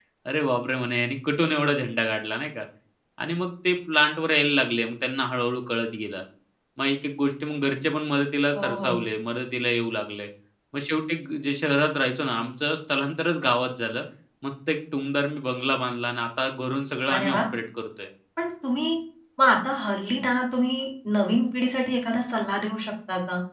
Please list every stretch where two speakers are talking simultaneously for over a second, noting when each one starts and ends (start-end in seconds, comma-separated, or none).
none